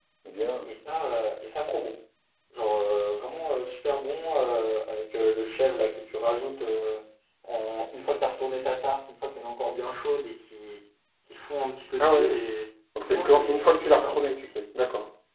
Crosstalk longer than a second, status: present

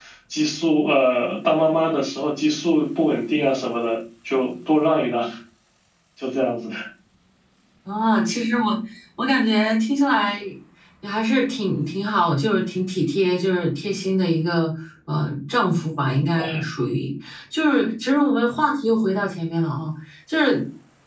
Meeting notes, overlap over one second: none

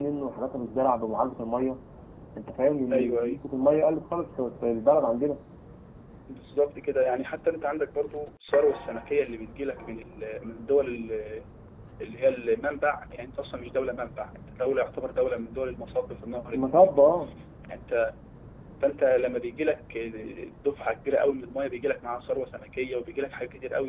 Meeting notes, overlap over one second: none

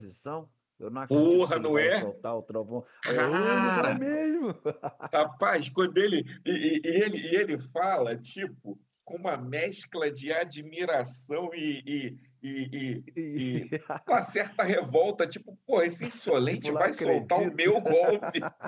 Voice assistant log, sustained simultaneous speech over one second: present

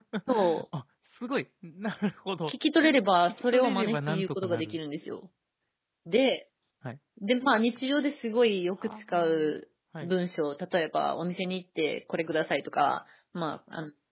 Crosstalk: present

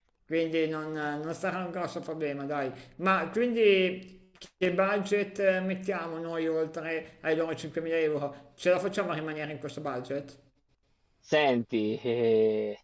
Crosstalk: none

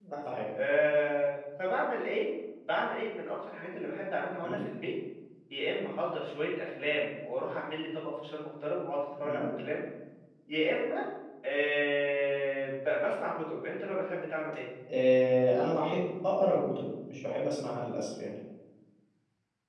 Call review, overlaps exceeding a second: none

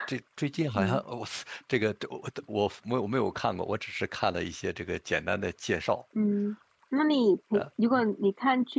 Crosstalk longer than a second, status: none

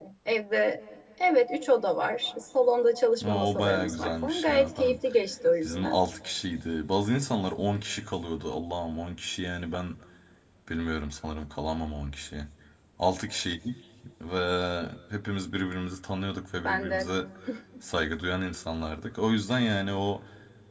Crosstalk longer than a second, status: present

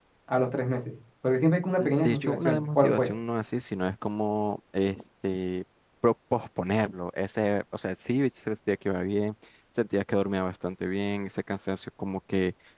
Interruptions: present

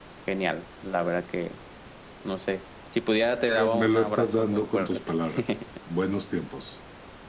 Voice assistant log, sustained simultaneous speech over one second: present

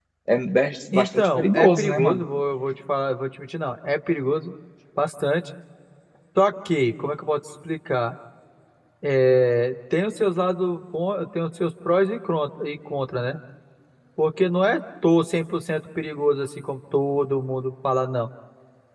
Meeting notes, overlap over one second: present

